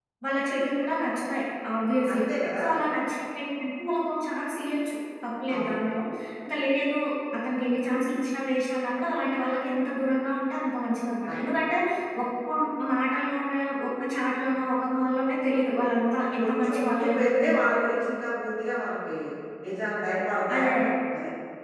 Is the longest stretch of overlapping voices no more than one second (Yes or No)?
No